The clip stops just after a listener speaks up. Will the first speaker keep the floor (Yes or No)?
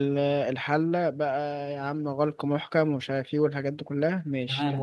No